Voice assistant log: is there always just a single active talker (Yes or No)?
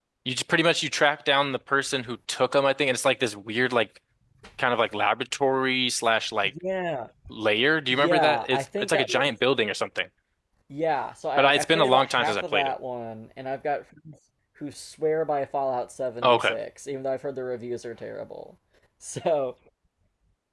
No